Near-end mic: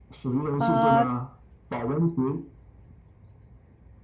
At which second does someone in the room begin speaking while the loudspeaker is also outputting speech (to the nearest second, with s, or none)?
1 s